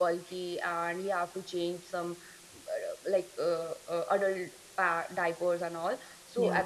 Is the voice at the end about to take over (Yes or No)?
No